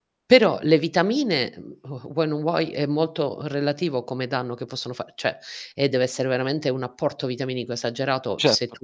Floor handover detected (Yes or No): No